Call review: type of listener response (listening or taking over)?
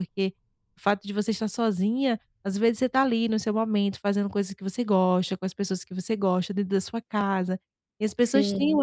listening